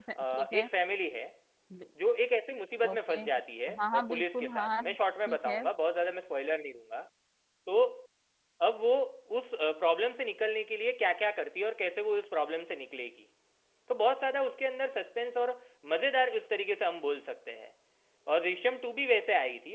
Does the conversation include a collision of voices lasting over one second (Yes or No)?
Yes